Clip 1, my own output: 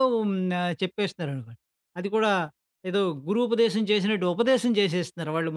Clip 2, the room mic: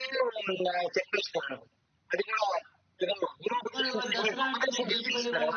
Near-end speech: present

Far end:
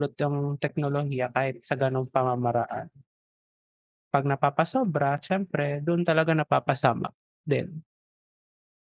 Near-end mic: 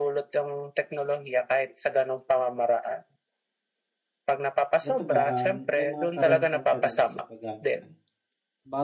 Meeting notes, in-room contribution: present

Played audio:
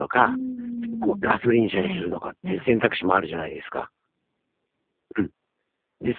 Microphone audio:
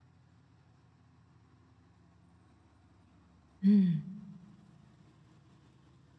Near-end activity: present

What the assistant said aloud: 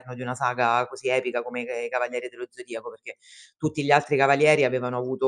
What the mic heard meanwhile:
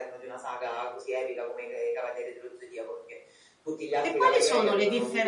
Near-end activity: present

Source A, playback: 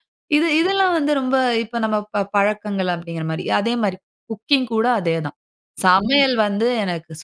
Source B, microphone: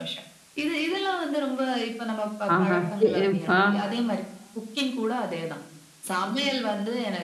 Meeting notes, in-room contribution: present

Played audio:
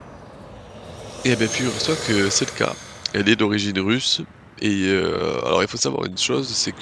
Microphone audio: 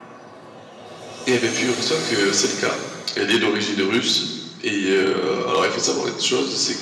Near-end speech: none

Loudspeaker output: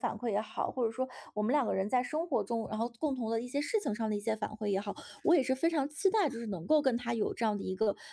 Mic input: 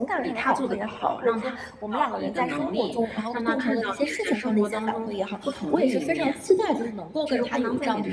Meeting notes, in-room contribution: present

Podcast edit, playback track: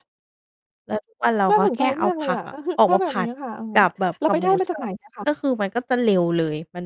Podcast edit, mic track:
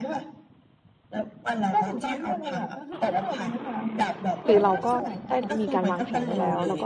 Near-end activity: present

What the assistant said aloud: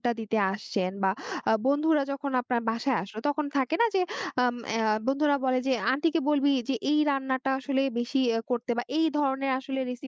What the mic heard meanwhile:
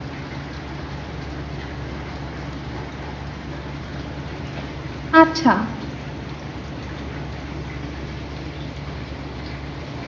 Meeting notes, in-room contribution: present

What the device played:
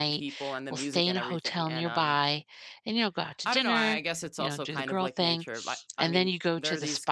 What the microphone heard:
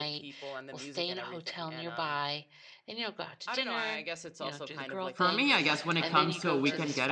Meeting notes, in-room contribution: present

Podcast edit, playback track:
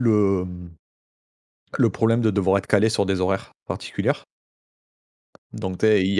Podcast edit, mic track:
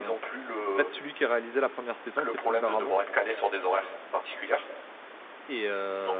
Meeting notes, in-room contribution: present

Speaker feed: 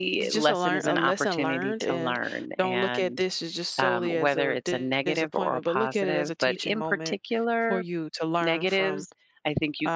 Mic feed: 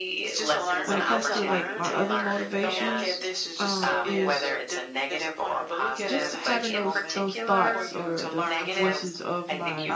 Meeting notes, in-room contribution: present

